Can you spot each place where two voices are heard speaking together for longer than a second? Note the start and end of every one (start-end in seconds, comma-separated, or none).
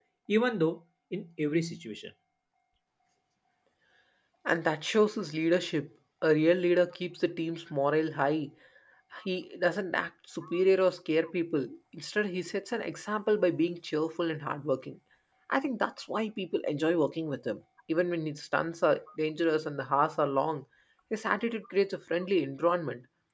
none